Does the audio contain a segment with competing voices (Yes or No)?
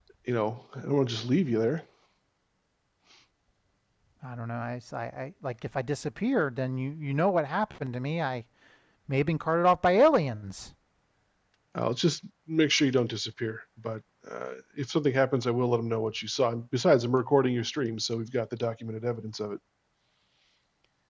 No